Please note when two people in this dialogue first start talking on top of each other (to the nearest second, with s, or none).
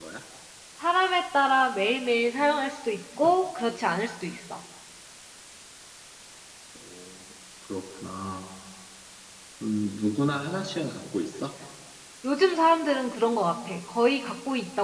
none